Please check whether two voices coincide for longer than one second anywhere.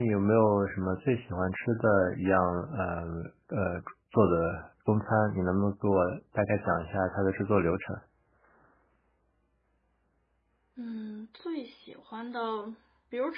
No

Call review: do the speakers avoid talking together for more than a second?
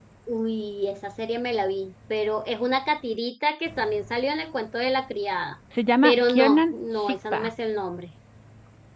No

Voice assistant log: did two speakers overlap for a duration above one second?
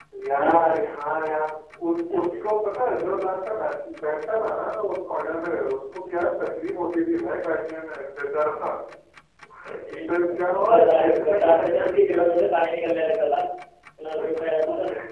Yes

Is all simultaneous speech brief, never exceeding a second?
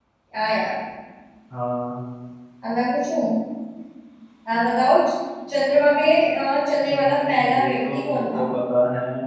No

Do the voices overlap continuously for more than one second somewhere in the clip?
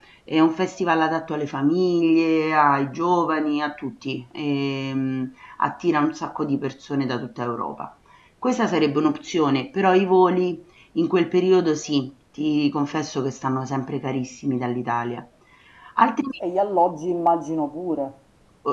No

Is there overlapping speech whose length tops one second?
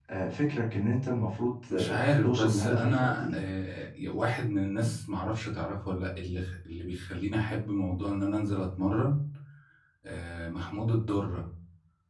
Yes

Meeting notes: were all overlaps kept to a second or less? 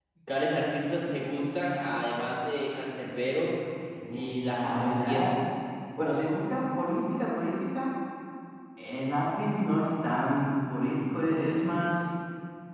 No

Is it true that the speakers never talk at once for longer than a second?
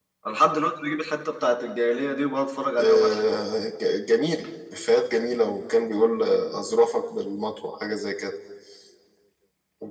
Yes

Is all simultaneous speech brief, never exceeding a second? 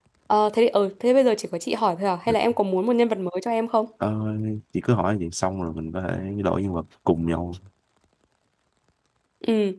Yes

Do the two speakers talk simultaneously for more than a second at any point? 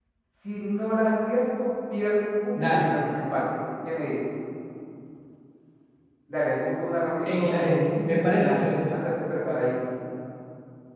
Yes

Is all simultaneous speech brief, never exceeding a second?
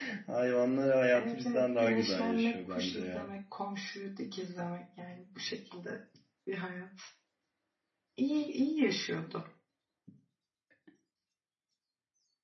No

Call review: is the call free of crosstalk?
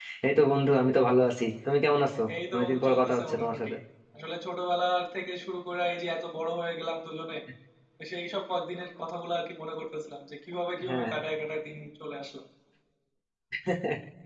No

